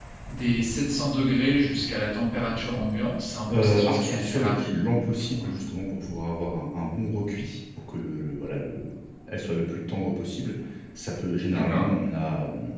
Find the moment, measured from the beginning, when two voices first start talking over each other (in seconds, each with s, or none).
3.5 s